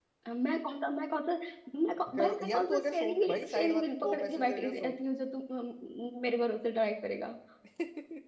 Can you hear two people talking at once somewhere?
Yes, from 2.2 s

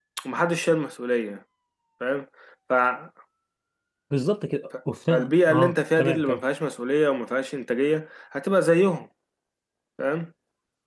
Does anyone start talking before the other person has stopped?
Yes, from 5.1 s

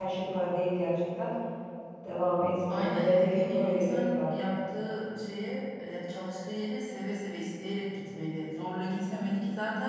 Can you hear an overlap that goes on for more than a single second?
Yes, from 2.7 s

